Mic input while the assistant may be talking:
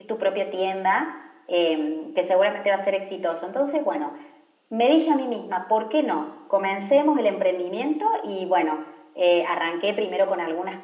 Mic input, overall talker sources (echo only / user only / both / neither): user only